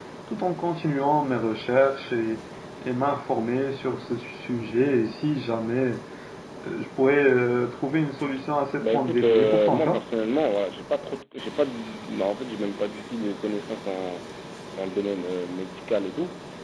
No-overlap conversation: No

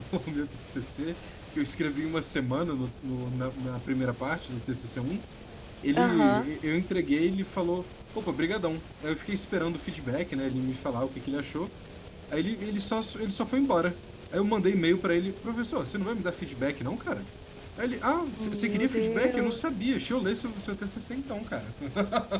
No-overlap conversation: No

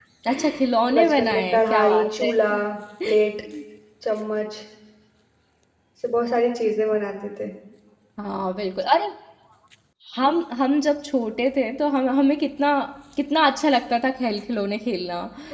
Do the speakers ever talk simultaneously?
Yes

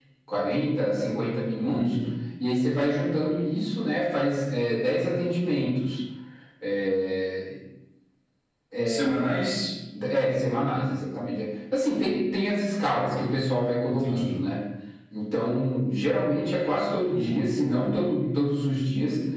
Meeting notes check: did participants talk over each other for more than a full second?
No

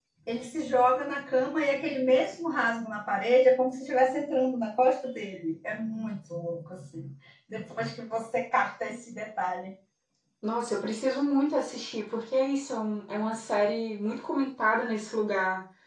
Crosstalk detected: No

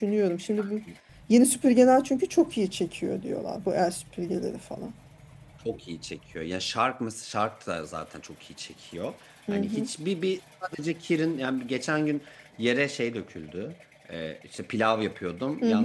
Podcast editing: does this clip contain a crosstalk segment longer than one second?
No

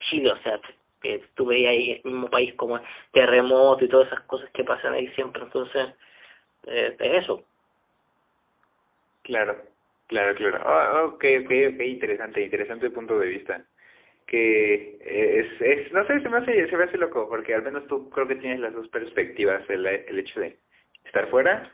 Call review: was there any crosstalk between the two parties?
No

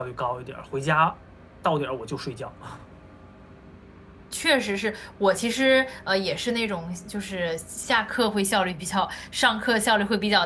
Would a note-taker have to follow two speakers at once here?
No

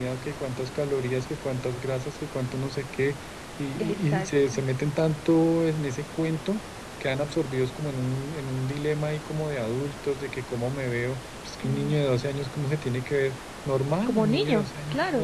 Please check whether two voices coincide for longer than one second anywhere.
Yes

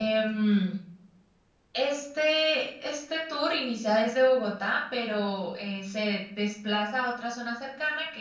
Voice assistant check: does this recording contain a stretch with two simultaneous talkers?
No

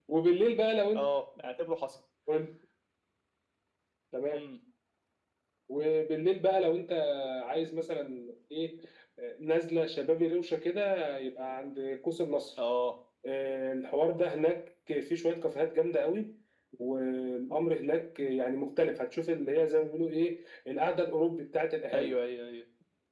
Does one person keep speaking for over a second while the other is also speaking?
No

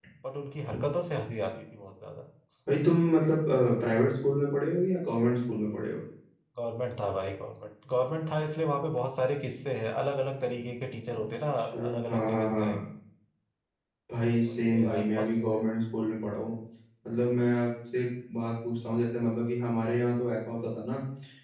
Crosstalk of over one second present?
Yes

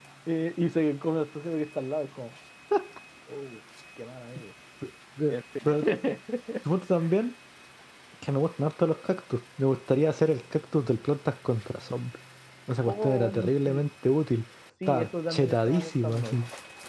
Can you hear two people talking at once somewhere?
Yes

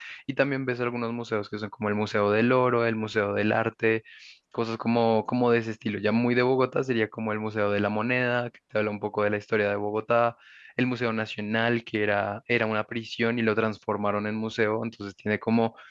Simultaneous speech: No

